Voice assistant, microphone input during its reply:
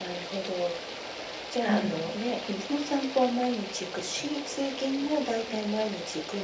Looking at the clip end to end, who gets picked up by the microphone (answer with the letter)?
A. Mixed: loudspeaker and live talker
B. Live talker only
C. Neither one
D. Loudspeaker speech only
A